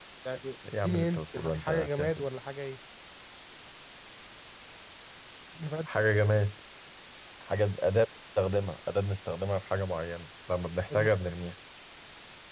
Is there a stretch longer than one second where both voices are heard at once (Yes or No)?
Yes